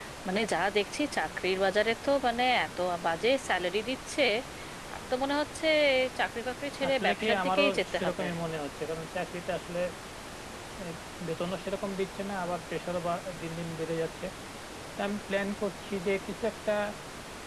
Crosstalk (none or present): present